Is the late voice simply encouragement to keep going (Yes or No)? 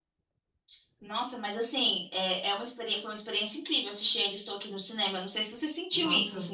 No